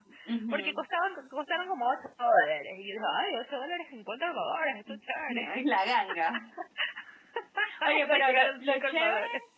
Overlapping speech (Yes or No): Yes